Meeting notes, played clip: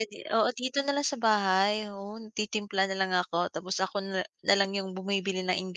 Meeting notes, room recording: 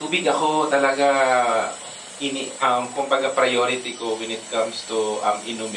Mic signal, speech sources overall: user only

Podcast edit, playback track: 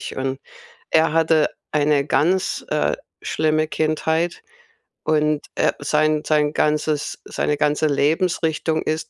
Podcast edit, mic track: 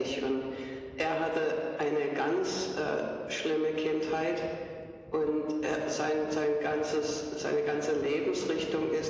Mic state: echo only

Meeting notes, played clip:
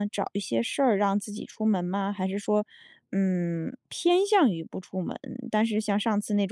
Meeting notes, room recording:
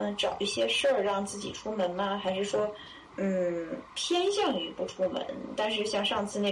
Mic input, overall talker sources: echo only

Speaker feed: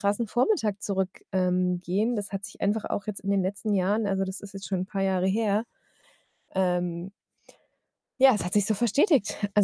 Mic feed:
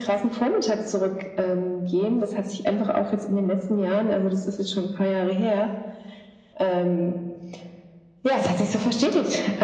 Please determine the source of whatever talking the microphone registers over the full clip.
echo only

